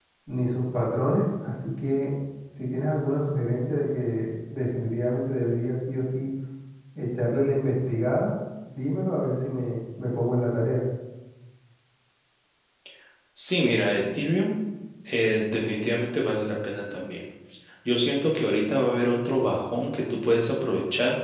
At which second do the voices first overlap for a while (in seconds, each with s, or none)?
none